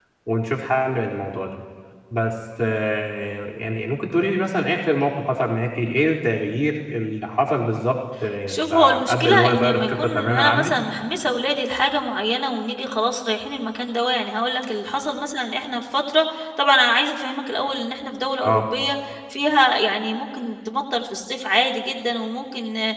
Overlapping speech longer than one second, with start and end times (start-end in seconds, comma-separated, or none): 8.7-10.7